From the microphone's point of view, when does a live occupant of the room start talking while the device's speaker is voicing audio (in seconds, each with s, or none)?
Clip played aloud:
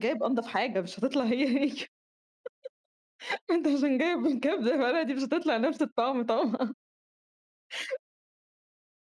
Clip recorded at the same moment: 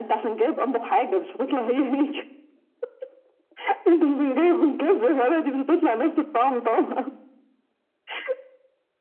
none